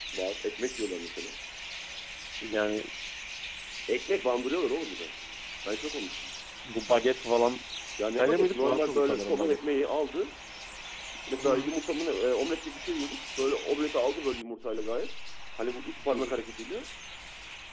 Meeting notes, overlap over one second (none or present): present